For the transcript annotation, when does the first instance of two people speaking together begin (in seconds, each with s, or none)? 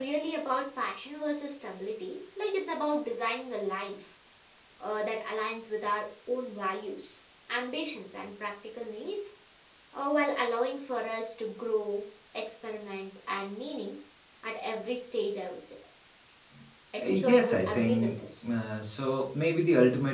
17.0 s